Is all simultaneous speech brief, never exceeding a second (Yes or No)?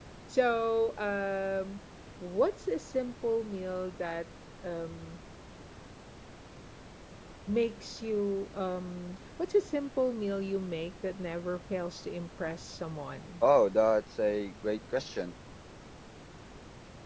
Yes